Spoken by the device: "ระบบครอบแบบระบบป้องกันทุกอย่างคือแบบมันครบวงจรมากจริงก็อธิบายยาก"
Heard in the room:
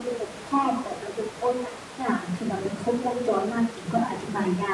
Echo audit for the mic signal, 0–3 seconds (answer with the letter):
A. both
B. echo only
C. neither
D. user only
B